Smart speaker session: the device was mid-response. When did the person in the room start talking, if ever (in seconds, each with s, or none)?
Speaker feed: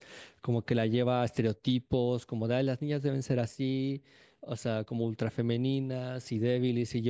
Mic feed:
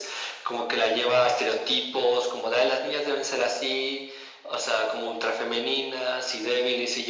none